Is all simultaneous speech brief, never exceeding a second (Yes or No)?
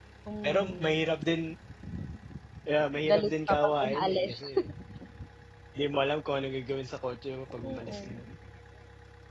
No